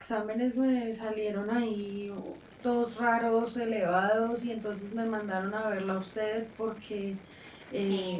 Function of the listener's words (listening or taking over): listening